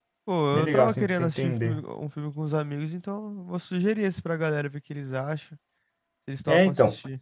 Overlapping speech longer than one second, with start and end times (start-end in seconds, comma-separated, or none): 0.5-1.8